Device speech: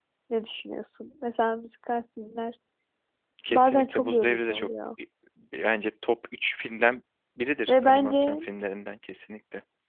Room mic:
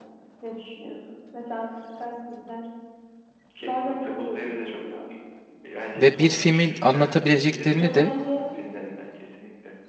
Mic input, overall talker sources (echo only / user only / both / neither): both